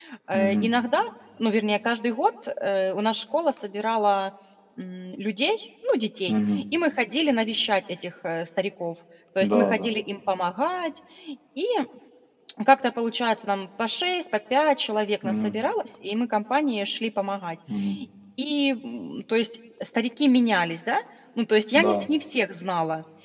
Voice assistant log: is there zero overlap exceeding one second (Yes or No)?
Yes